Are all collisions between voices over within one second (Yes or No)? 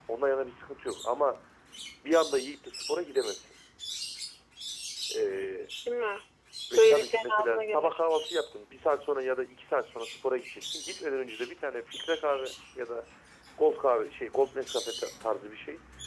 No